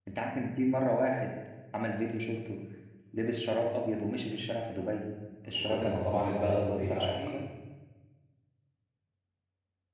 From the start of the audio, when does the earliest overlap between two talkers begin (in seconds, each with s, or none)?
5.5 s